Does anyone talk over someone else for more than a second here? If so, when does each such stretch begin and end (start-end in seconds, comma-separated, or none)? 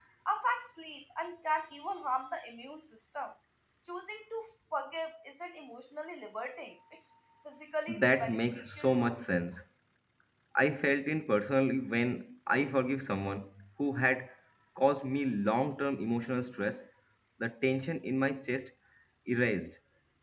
8.0-9.2